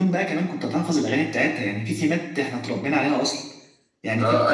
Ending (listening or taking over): taking over